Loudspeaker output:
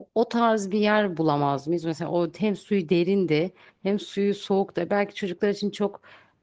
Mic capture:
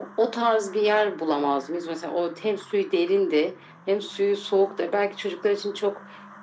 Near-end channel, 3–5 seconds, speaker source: echo only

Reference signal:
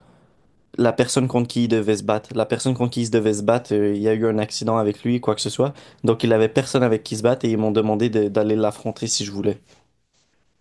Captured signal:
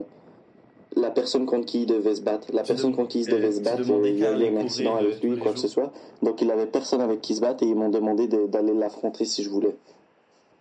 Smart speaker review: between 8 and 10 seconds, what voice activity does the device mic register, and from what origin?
echo only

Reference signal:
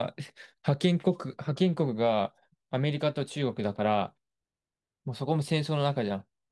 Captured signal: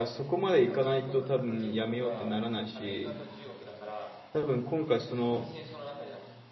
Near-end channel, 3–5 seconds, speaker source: both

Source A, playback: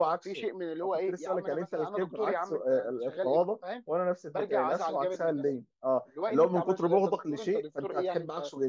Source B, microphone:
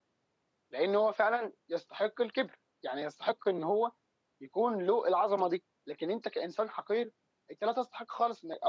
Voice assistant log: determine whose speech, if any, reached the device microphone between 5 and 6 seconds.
user only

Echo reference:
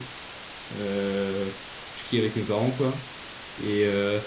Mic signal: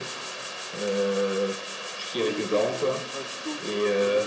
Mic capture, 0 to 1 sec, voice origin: echo only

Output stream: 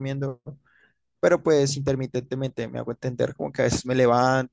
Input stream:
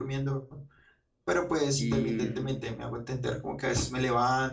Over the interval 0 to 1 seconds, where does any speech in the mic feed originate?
echo only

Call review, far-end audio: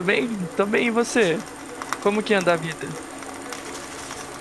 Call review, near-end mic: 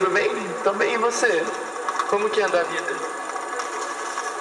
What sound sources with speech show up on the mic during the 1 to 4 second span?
echo only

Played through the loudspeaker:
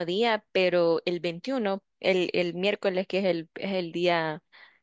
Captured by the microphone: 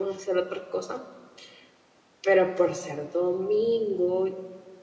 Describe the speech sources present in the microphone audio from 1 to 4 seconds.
user only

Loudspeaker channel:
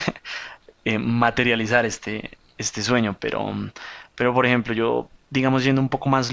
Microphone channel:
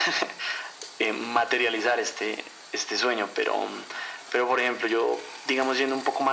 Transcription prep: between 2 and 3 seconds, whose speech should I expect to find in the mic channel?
echo only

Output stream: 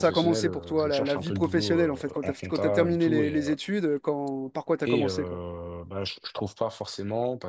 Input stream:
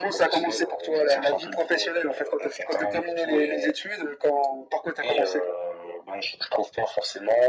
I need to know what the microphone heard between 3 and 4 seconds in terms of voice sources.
echo only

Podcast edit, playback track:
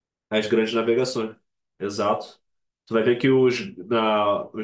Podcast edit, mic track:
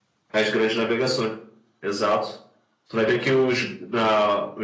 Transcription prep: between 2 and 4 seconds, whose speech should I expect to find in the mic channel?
echo only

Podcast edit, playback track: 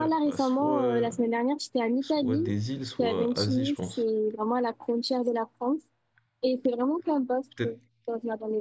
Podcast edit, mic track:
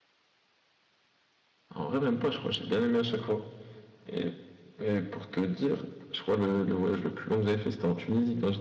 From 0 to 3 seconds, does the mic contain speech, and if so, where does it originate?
user only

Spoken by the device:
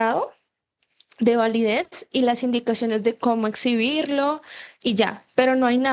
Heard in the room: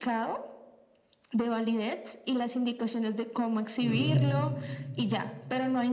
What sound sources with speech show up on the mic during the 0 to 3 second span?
echo only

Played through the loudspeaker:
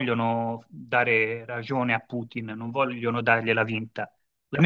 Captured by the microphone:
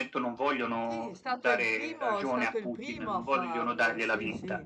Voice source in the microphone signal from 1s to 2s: both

